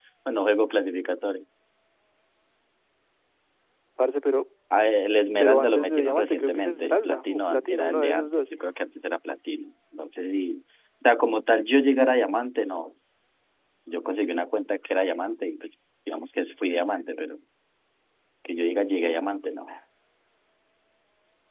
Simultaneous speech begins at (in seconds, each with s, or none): 5.4 s